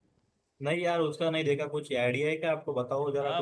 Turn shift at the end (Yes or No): Yes